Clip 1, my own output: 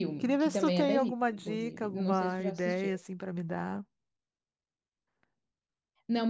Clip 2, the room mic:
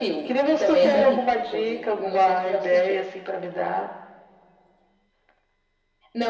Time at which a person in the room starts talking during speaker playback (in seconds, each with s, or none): 0.8 s